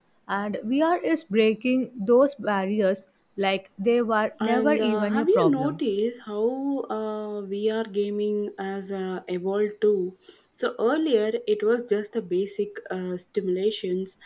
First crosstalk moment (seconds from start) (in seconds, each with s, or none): 4.4 s